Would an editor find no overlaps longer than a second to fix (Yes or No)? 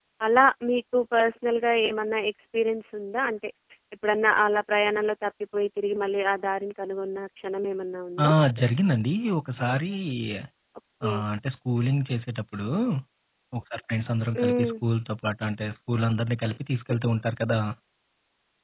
Yes